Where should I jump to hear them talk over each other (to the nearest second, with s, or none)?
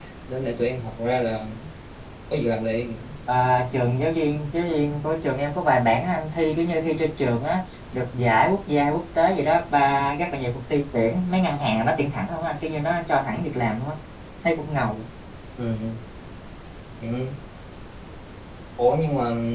none